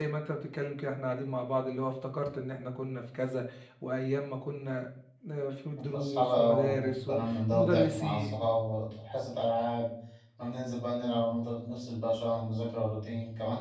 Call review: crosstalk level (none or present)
present